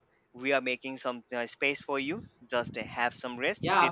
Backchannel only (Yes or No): No